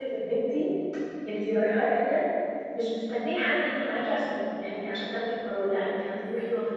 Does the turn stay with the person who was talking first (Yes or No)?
Yes